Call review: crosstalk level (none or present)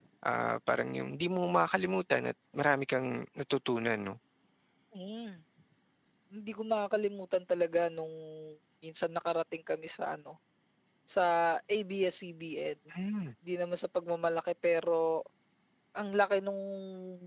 none